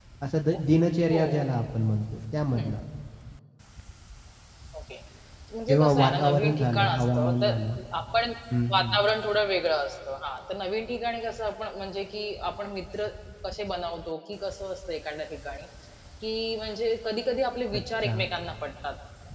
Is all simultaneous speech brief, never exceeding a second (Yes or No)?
No